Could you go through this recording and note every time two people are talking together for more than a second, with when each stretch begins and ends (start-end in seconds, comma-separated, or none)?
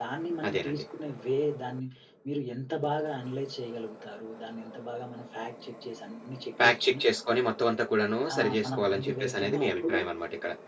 8.3-10.0